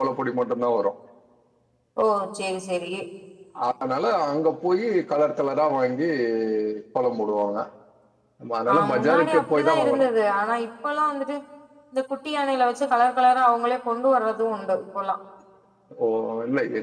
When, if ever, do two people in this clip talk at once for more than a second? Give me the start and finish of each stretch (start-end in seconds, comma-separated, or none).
8.7-10.1